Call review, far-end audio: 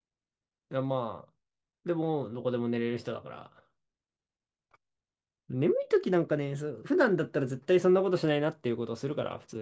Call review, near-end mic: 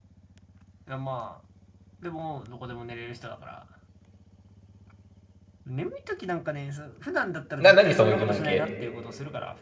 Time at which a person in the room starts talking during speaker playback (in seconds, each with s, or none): 7.6 s